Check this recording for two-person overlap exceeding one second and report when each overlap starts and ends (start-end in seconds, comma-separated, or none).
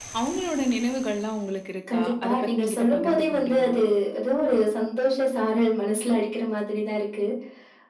1.9-3.7